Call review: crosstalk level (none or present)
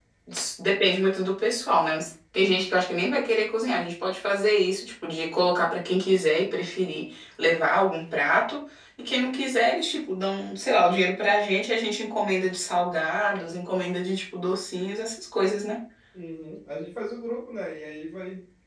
none